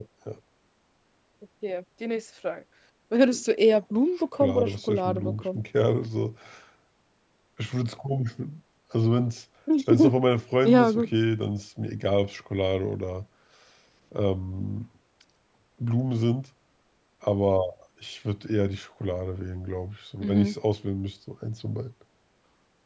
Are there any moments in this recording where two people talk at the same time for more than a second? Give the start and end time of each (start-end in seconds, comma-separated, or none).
4.3-5.6